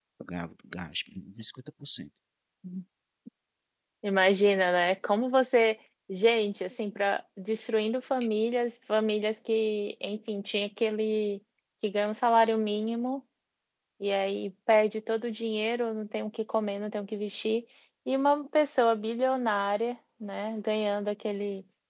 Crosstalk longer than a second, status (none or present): none